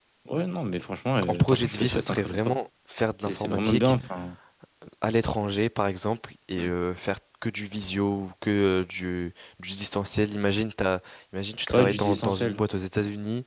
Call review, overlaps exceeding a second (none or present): present